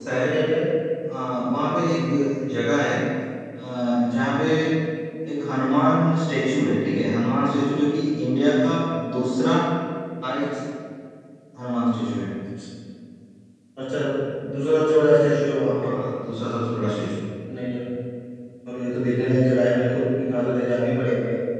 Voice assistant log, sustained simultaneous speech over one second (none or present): none